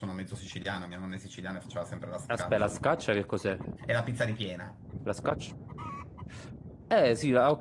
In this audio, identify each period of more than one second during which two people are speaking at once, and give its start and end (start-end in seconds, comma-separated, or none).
none